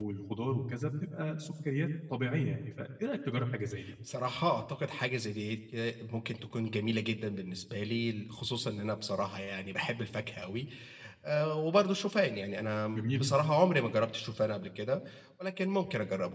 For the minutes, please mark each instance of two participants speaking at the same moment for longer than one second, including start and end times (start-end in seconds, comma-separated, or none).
none